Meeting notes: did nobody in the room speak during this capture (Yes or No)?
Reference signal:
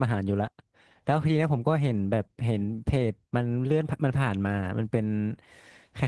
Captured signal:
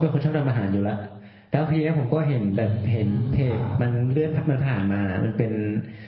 No